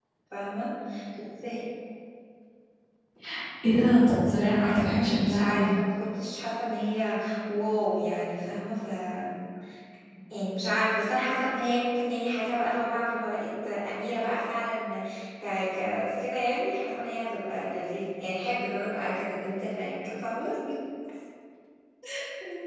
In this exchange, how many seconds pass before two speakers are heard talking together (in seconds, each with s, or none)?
4.3 s